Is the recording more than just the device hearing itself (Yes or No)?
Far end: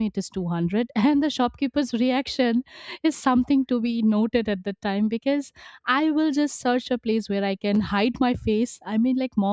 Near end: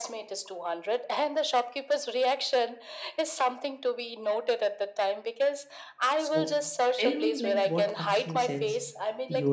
Yes